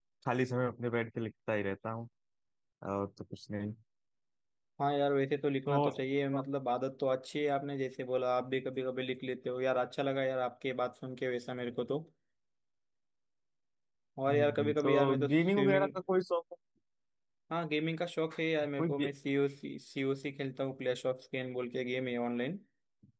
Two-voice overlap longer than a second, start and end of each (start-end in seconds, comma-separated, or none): 14.3-15.9